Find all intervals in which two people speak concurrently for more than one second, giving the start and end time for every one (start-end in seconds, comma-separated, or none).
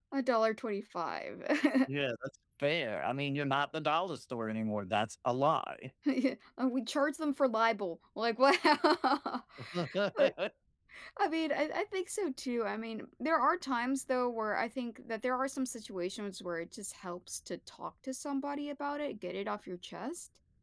none